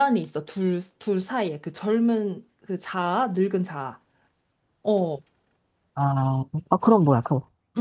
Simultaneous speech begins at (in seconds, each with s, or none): none